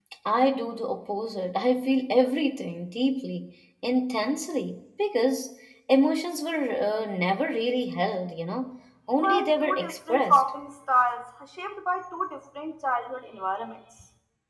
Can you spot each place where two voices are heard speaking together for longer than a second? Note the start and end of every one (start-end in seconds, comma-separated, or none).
9.2-10.4